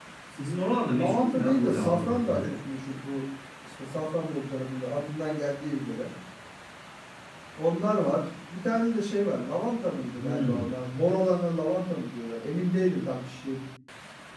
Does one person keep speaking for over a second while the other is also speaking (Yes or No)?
Yes